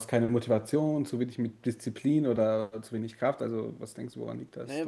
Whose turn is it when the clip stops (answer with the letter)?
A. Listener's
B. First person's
A